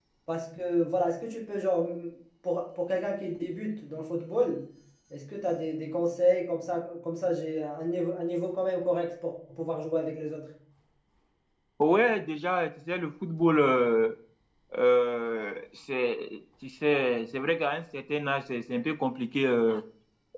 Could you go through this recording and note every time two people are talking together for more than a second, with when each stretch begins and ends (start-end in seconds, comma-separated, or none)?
none